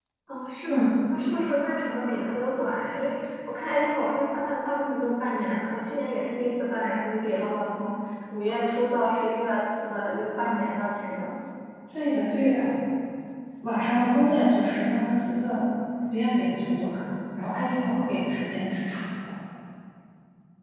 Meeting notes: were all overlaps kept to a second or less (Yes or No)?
Yes